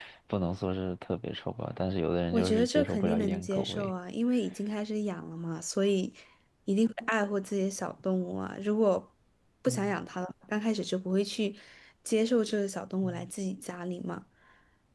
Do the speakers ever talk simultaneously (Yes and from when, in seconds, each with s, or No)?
Yes, from 2.3 s